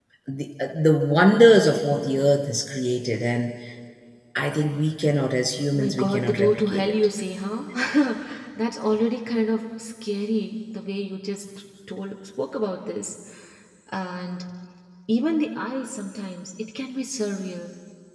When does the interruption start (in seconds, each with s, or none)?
5.7 s